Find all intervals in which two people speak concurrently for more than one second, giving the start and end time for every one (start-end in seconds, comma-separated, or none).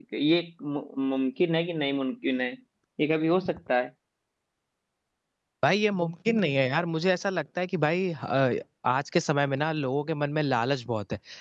none